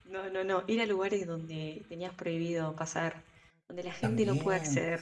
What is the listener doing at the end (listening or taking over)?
taking over